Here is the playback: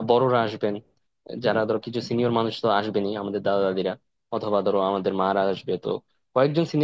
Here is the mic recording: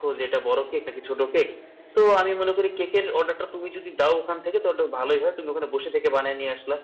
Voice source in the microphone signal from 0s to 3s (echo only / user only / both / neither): user only